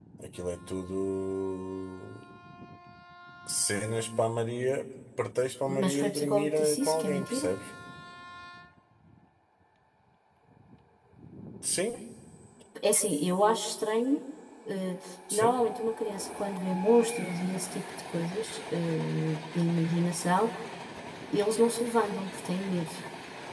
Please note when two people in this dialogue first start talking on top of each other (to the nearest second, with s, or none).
6 s